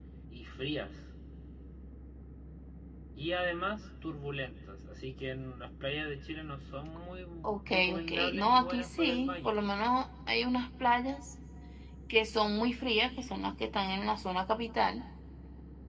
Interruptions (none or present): present